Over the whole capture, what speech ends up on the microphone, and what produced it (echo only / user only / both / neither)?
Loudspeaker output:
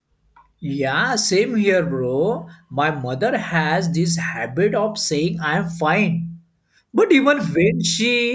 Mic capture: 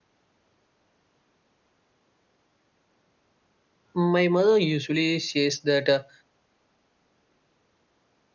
user only